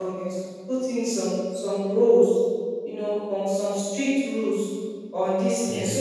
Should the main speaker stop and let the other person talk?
No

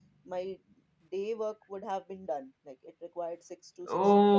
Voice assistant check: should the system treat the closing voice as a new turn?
Yes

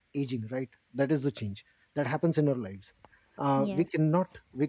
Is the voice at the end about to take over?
No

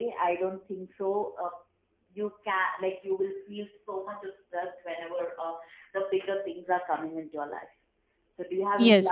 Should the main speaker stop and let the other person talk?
Yes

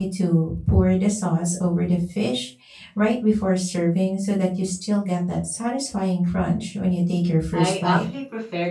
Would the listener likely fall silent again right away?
No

